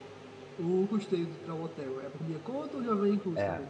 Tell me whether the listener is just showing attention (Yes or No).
No